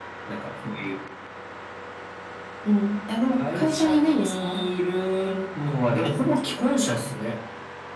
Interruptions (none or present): present